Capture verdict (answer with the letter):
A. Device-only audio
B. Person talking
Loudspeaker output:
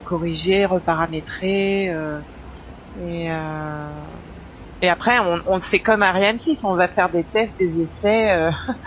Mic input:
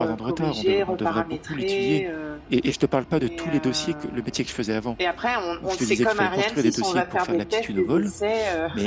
B